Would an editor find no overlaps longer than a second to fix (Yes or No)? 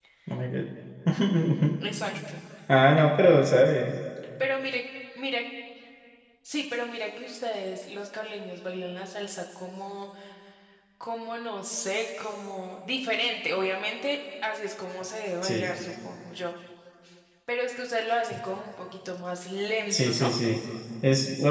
Yes